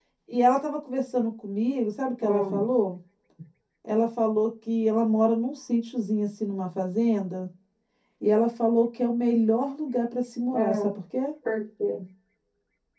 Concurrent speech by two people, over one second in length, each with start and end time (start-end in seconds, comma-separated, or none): none